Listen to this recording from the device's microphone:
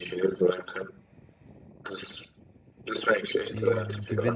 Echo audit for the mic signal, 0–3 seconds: echo only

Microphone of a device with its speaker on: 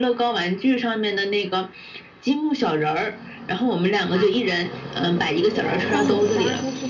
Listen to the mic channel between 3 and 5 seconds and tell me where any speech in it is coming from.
echo only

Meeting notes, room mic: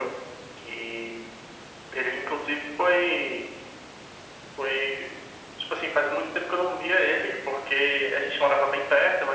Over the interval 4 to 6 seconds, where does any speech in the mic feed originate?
echo only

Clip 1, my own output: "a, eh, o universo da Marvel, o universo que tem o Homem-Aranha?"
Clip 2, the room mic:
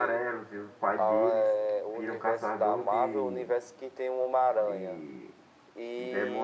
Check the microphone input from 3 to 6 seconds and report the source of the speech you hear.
both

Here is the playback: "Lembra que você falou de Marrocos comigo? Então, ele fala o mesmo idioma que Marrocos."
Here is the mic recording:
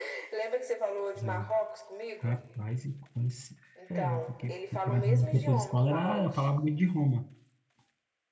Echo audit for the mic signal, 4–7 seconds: both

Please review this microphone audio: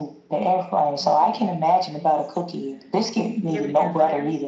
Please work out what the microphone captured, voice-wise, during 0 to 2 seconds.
both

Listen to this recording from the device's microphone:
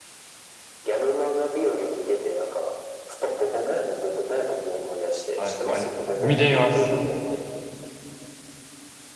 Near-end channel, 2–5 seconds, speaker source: echo only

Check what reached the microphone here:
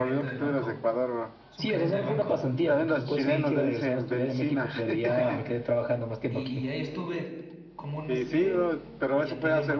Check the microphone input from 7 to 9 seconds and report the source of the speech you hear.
both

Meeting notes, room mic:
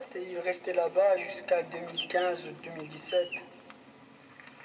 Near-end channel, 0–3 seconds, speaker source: echo only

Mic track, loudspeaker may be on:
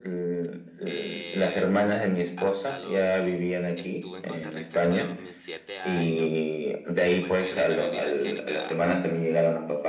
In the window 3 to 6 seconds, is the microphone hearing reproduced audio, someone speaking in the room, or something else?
both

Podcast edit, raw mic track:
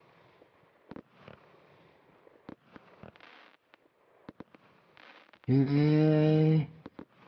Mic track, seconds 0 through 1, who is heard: neither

